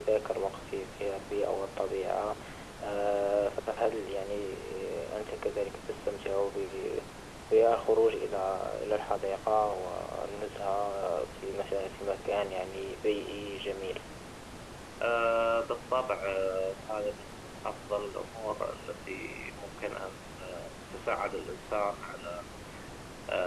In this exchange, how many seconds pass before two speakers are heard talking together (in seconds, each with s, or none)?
none